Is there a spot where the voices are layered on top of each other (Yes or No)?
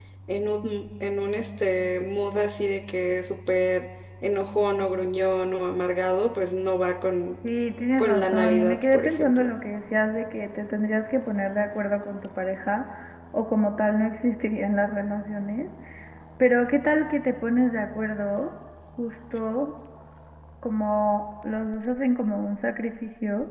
Yes